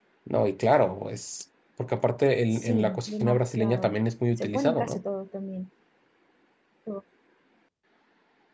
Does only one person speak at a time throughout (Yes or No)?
No